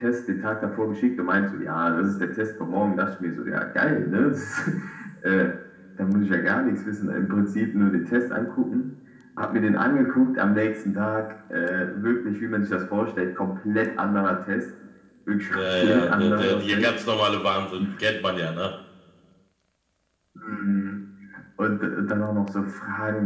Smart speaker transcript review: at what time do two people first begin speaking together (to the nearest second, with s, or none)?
16 s